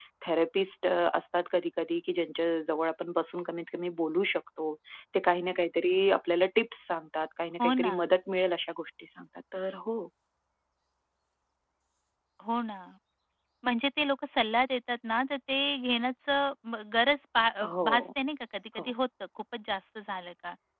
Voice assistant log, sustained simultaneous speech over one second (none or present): none